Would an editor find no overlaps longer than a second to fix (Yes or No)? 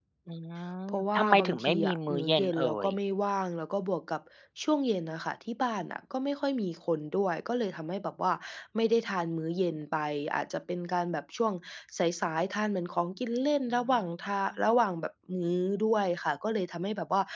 No